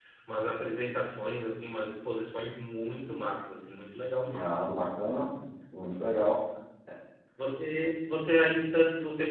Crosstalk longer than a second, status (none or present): none